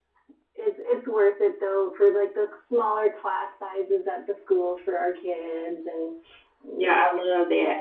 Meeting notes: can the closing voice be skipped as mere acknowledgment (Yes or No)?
No